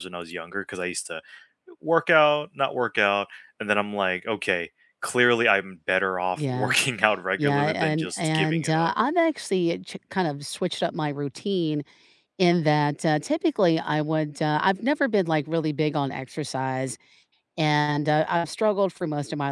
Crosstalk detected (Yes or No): Yes